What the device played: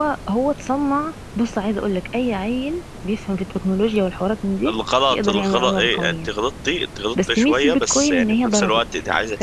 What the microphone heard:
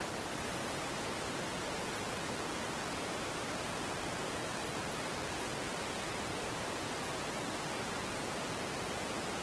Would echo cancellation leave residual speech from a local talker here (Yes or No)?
No